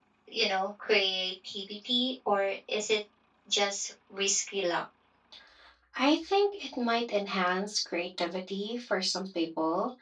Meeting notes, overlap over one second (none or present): none